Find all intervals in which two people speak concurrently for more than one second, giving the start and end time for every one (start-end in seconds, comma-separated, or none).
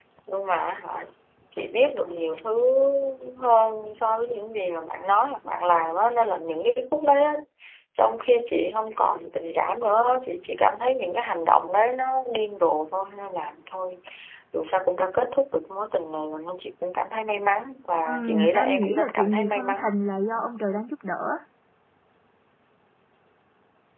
18.1-19.9